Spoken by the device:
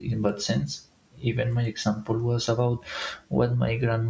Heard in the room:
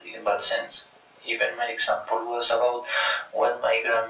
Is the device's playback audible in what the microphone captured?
Yes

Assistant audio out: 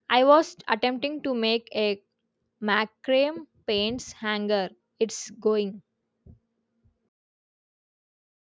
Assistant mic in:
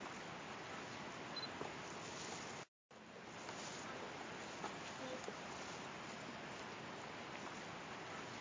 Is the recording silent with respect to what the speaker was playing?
Yes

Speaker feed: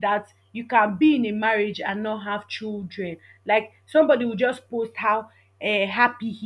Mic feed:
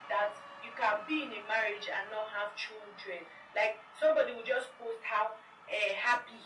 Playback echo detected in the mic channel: Yes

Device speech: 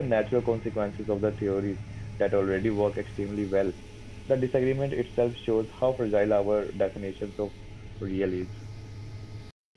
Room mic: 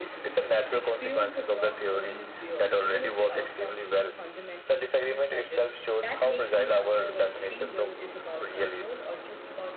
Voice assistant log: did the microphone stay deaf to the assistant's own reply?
No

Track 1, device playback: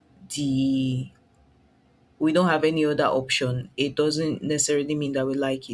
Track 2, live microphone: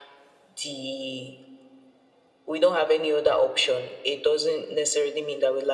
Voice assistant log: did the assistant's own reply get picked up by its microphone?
Yes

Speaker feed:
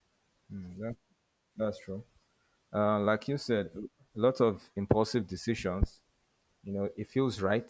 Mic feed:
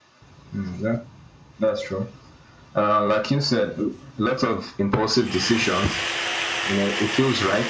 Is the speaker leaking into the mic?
Yes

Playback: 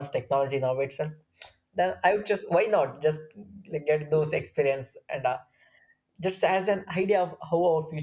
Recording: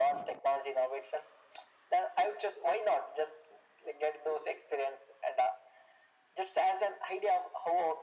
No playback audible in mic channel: No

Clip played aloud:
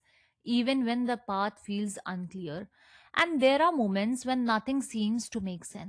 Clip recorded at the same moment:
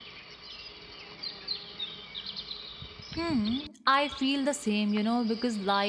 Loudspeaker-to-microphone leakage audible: No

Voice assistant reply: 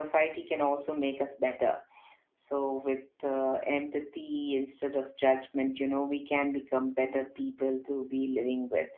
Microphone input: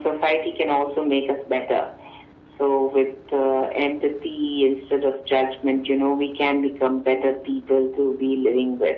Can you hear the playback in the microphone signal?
Yes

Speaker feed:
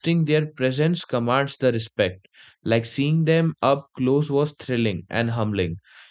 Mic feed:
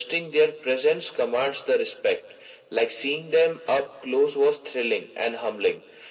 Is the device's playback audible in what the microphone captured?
Yes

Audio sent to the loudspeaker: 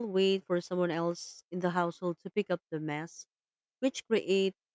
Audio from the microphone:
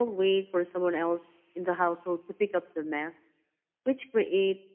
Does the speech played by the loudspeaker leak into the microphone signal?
Yes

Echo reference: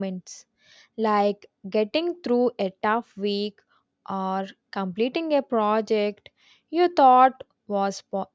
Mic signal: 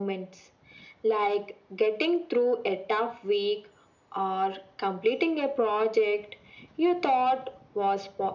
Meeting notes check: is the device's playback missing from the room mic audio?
No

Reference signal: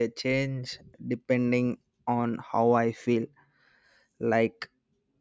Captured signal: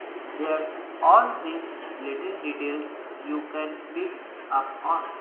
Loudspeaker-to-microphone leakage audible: No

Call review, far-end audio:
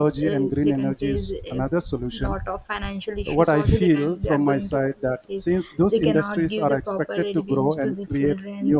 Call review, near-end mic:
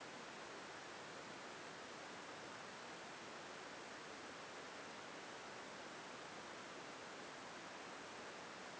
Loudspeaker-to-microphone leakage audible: No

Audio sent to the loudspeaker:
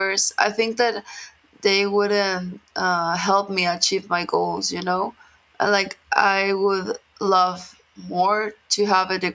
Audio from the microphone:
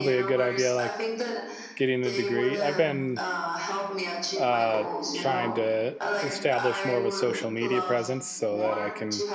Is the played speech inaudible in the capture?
No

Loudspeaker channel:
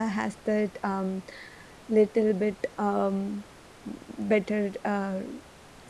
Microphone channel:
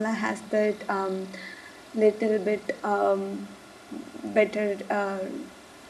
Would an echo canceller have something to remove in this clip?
Yes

